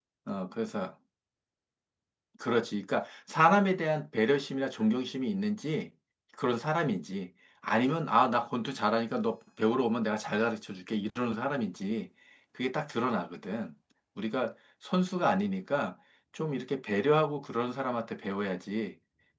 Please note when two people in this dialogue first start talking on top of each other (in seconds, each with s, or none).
none